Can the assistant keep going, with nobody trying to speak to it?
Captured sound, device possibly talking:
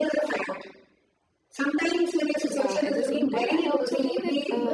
No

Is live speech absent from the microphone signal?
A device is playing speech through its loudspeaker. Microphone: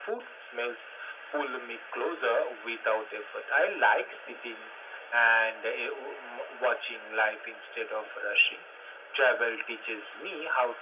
Yes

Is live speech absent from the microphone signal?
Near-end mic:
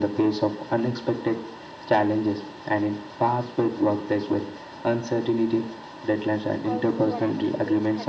No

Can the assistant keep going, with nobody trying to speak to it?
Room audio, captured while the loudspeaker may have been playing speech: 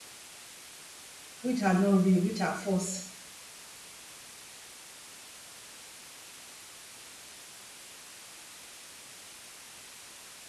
No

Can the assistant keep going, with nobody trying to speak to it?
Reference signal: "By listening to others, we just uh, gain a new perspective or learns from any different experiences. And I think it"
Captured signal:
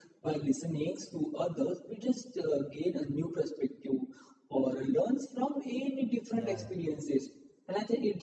No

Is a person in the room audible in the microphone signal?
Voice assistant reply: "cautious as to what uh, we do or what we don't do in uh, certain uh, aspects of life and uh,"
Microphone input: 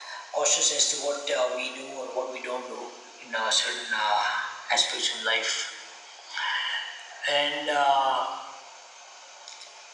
No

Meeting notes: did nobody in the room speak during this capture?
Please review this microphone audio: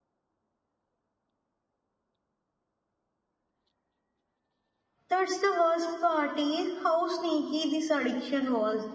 No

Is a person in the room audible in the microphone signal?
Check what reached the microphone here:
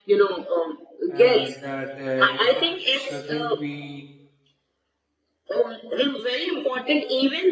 Yes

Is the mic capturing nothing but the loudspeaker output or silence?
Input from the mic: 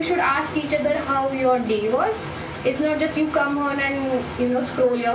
Yes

